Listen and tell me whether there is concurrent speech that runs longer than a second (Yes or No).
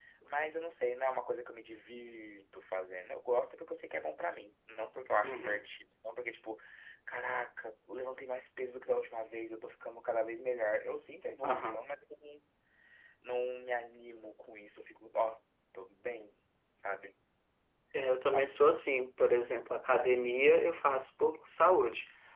No